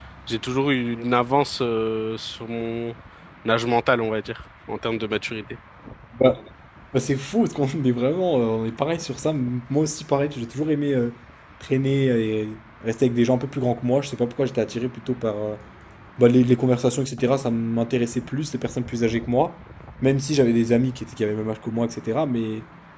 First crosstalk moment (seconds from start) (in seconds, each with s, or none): none